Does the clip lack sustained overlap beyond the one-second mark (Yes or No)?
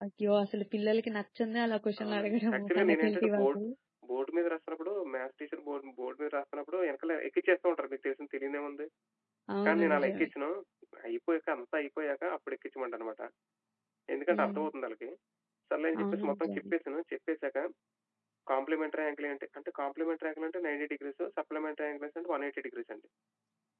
No